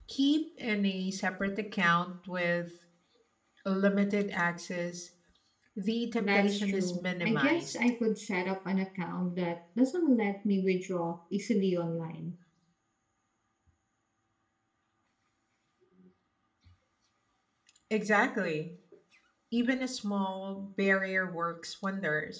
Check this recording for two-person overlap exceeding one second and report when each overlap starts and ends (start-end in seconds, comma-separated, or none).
6.2-7.8